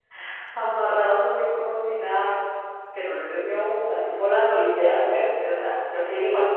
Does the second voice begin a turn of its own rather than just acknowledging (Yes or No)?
Yes